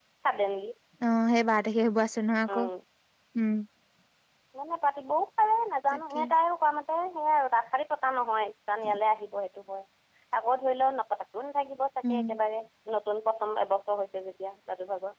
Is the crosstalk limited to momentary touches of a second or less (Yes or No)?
Yes